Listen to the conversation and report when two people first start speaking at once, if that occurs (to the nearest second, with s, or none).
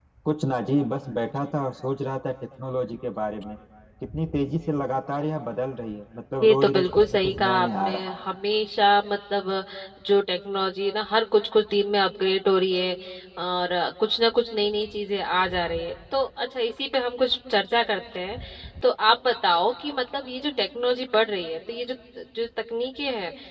6 s